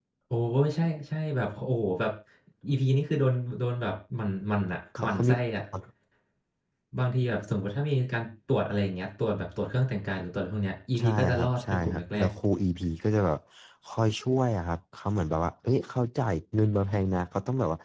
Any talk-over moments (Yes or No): Yes